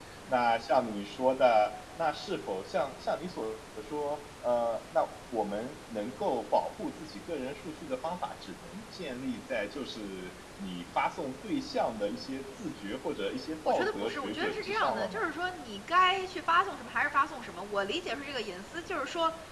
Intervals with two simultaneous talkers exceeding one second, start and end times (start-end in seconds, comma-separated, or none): 13.7-15.2